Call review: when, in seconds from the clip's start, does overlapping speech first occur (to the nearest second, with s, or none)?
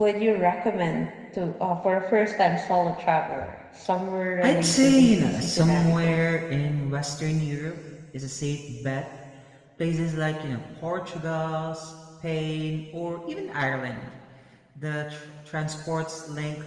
4 s